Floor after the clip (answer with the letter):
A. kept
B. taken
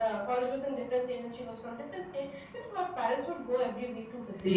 B